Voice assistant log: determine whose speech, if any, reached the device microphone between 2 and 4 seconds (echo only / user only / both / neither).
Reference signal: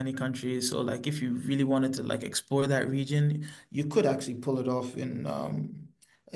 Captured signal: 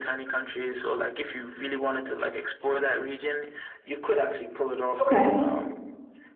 echo only